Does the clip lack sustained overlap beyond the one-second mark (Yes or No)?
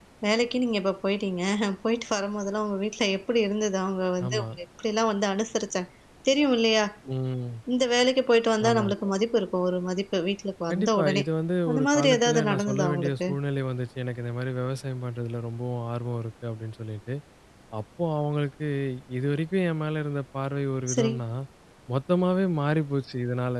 No